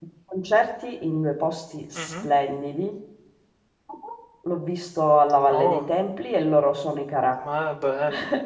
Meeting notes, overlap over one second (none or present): none